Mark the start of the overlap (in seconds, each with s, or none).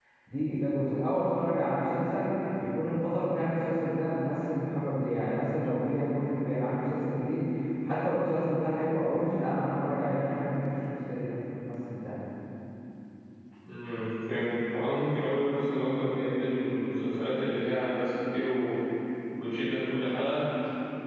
none